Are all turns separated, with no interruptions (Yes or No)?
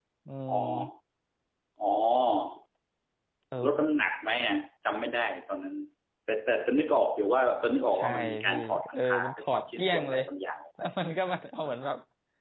No